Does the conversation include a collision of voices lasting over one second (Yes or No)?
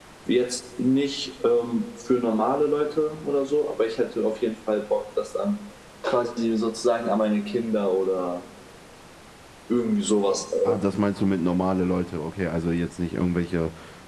No